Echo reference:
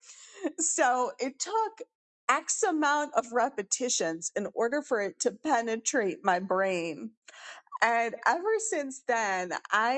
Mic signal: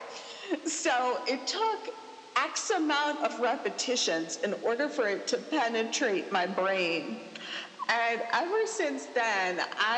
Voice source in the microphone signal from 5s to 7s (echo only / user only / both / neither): echo only